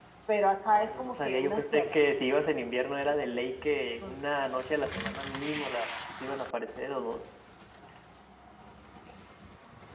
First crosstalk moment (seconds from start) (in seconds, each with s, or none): 0.7 s